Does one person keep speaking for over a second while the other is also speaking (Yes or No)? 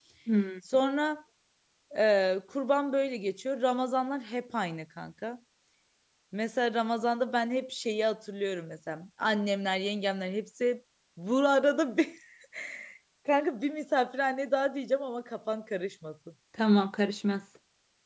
No